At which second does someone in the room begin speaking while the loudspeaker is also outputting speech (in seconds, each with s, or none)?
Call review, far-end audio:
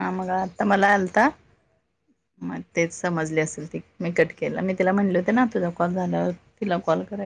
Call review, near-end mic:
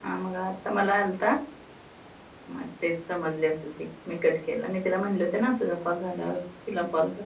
none